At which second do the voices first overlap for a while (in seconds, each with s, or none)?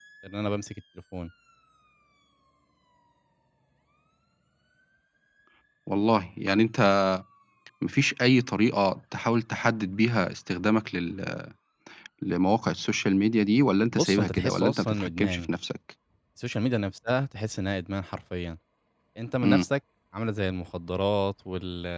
13.9 s